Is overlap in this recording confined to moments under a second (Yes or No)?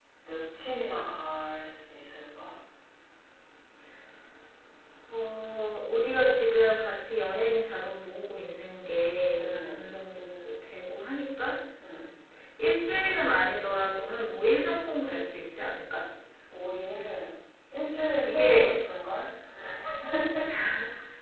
Yes